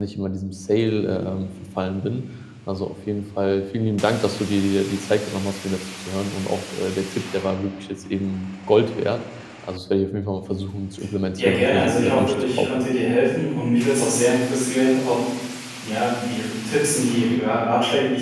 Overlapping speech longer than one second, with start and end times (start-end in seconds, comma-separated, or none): 11.4-12.8